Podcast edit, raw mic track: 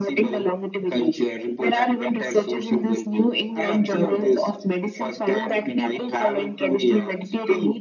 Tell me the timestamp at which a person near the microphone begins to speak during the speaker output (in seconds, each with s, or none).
none